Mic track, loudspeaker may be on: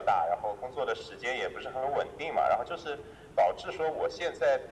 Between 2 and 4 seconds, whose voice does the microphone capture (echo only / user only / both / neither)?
echo only